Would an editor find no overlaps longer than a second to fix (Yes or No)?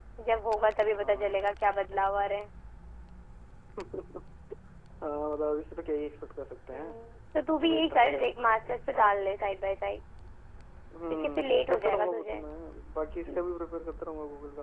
No